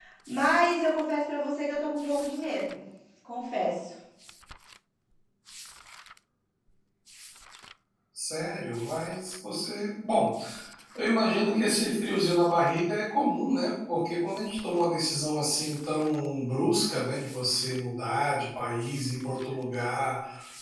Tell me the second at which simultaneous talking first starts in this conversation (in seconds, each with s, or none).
none